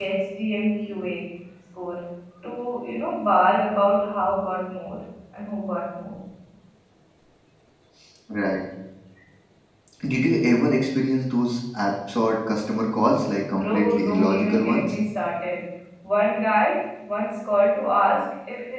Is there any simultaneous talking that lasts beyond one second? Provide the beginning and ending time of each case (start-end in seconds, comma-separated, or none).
13.5-14.9